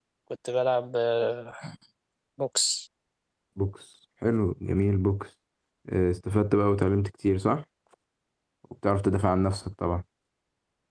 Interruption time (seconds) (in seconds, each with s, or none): none